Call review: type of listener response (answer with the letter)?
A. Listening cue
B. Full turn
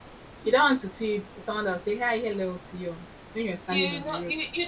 B